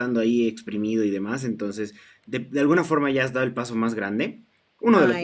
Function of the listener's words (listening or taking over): listening